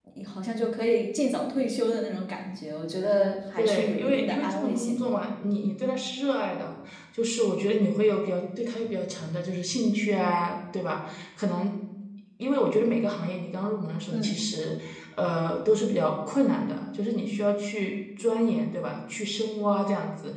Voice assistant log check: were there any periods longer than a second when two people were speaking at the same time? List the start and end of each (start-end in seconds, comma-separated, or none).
3.6-5.2